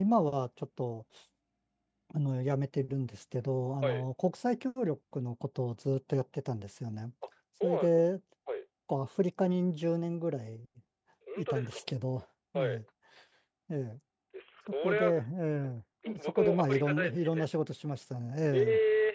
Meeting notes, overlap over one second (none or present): present